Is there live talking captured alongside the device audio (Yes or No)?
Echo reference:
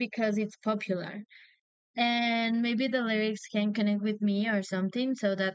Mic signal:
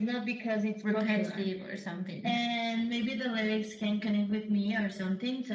Yes